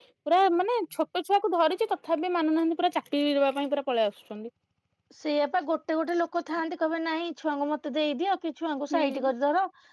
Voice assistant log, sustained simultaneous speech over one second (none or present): none